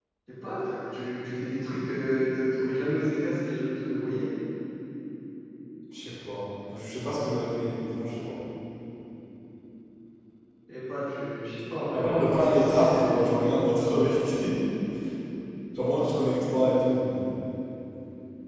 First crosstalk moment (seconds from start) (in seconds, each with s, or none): 11.9 s